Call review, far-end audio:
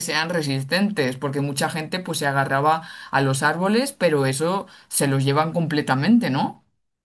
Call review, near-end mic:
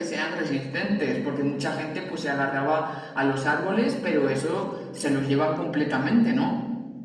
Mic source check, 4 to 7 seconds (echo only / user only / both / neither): echo only